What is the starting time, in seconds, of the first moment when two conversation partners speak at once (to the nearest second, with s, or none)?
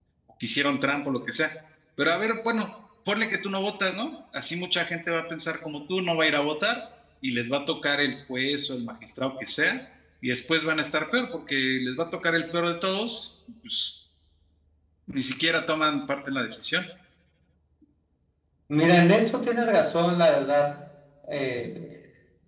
none